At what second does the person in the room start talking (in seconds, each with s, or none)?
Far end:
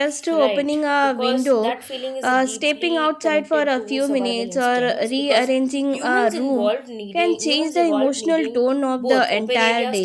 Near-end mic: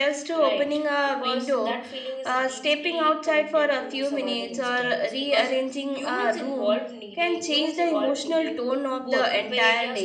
none